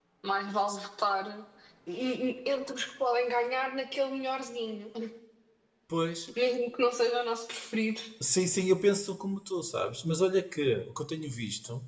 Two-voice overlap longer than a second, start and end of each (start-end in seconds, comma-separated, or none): none